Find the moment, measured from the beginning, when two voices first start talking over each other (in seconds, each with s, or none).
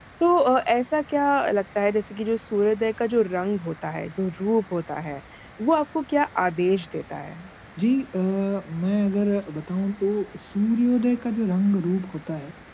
none